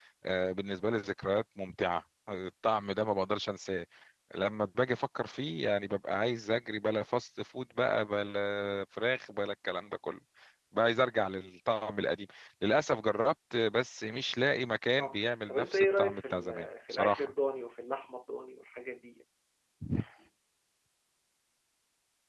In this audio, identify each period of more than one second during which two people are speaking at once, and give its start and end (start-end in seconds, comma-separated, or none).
15.0-17.3